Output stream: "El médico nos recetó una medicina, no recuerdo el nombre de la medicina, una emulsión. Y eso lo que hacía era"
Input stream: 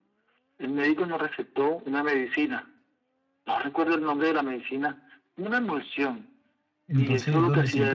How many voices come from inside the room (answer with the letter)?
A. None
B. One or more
B